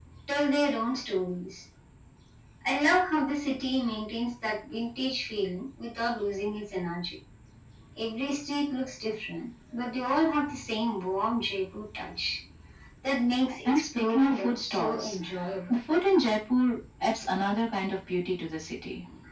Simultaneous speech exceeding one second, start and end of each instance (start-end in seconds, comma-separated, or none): 13.6-15.2